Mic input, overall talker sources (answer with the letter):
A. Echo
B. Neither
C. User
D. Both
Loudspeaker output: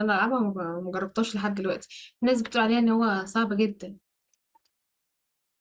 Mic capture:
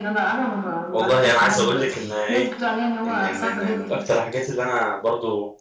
D